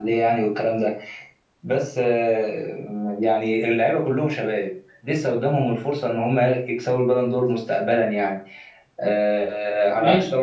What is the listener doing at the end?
listening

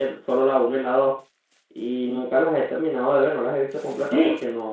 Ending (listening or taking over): listening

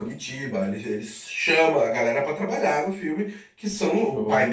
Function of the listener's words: listening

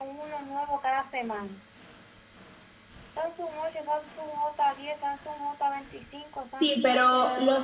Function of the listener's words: taking over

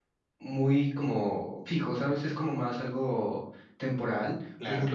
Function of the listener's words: listening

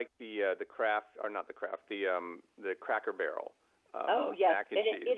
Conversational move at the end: taking over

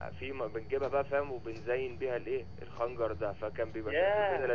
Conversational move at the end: taking over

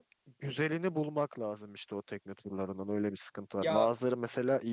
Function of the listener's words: listening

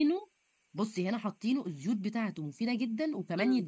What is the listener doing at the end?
taking over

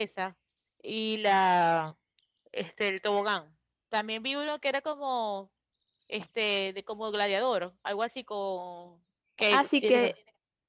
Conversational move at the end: taking over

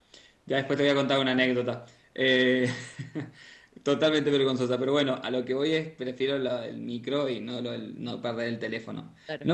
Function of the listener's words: listening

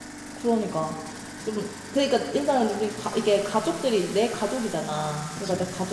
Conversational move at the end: listening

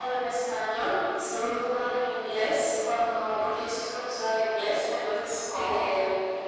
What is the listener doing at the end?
listening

